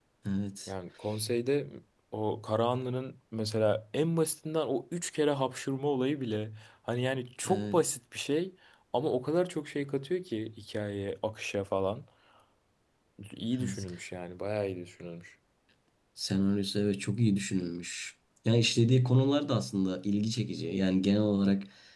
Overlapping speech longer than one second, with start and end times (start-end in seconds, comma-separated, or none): none